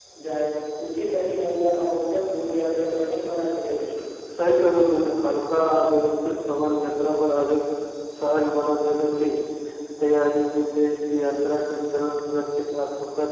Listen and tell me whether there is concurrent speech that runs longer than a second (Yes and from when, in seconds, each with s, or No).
No